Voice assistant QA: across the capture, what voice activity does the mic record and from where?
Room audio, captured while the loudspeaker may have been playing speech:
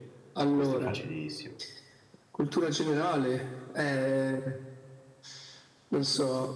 both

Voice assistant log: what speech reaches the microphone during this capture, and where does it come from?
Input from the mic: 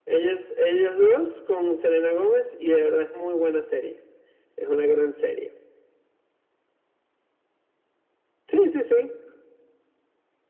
echo only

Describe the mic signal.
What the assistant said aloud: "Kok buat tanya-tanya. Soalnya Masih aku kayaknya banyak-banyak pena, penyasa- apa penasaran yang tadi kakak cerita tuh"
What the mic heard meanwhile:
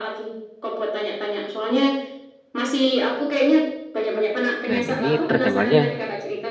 both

